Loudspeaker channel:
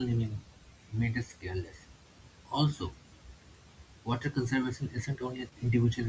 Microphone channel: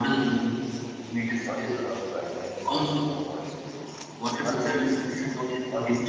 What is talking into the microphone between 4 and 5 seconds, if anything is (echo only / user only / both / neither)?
both